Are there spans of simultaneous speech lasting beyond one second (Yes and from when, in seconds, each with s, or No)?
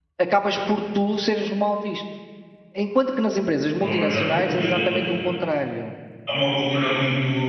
Yes, from 3.8 s